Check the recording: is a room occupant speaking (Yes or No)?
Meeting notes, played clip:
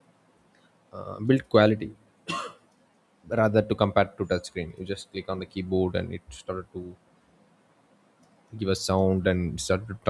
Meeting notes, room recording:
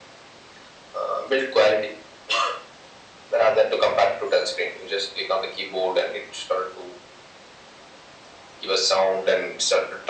No